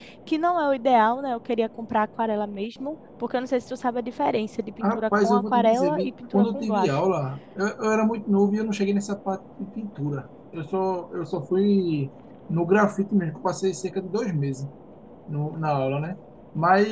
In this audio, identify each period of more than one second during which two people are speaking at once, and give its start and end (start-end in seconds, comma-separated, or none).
4.8-6.9